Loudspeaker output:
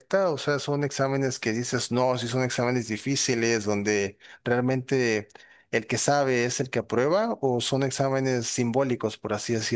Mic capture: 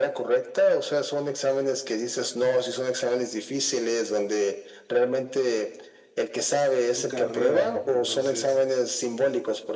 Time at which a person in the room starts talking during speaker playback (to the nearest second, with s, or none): 7 s